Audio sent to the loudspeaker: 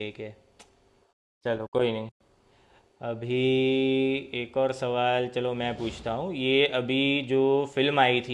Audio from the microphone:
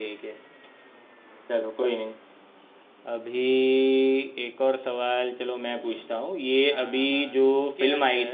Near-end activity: present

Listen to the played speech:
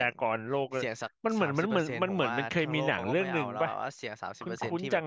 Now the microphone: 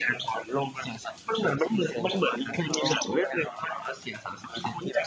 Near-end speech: none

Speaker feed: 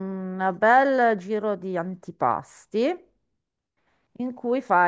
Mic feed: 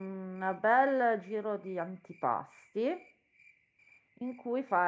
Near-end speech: none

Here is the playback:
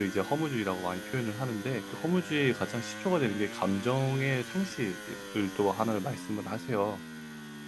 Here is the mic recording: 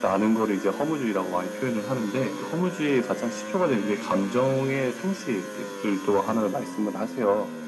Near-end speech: none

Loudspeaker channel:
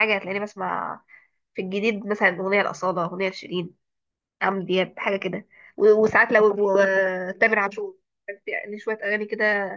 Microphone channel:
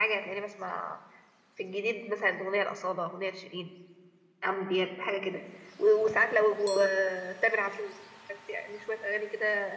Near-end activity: none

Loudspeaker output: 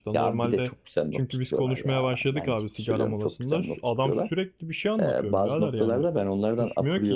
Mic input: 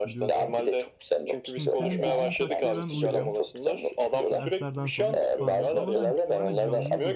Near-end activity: present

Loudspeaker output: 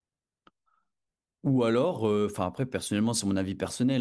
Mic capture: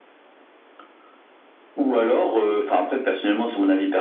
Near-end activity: none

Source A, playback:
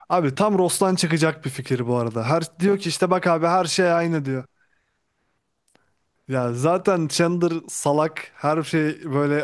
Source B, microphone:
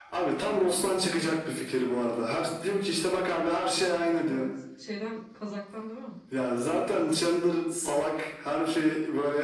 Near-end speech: present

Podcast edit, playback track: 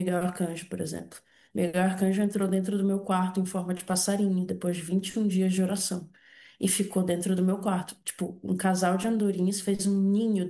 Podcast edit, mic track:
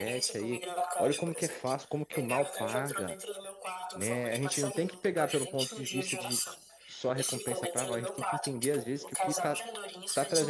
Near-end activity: present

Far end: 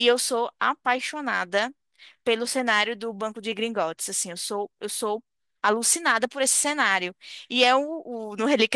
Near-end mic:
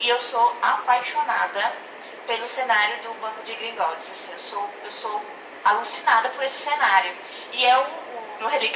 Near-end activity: none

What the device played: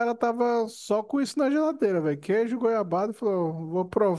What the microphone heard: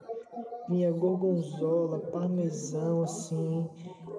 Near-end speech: present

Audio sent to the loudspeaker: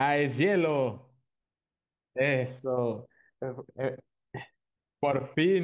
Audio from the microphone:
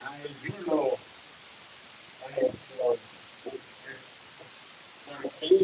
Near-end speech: none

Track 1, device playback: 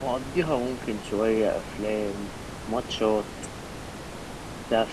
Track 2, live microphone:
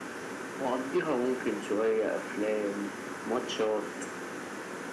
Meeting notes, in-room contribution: none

